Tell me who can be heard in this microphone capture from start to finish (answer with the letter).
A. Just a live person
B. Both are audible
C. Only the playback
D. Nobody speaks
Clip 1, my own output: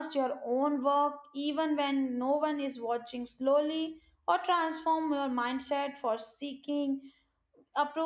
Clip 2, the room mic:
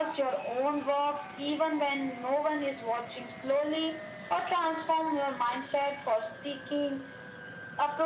C